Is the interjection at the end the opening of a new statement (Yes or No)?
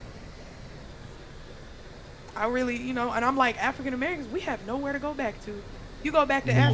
No